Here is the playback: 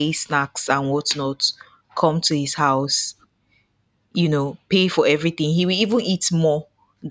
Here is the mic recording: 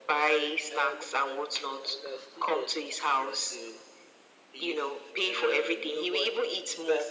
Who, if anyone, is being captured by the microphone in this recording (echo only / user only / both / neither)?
both